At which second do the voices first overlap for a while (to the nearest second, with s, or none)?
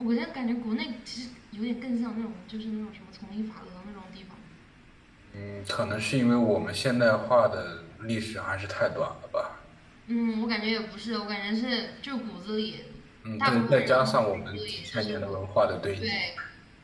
13 s